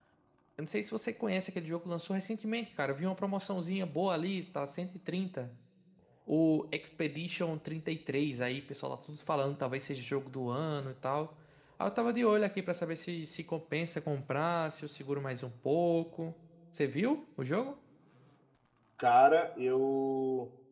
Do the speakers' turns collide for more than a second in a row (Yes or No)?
No